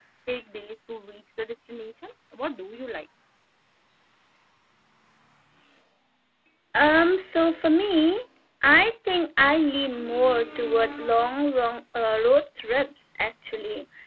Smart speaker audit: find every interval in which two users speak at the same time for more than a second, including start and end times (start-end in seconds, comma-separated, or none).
none